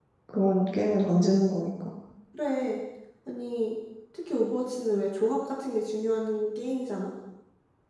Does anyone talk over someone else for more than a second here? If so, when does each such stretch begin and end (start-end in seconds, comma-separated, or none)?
none